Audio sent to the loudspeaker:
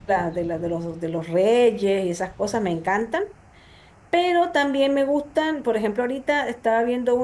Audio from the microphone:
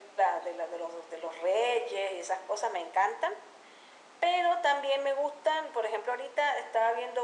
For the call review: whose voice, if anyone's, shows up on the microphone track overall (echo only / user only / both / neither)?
echo only